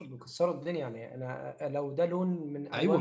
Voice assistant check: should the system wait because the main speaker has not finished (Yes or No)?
No